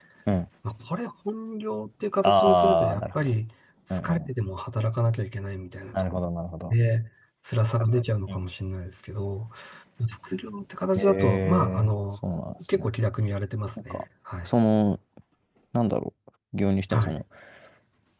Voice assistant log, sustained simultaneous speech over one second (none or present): present